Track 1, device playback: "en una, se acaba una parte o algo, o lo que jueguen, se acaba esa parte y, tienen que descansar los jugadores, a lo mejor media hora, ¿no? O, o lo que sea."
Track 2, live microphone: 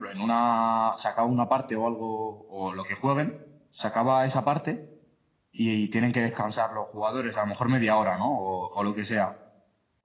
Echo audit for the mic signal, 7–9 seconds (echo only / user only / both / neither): echo only